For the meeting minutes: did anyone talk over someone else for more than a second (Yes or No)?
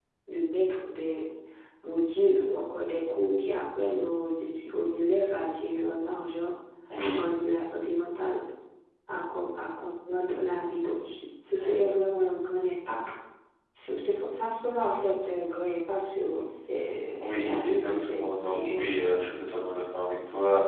Yes